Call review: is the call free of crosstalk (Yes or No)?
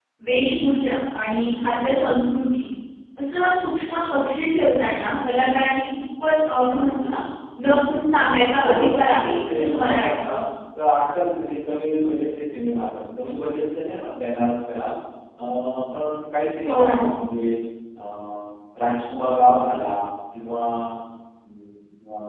No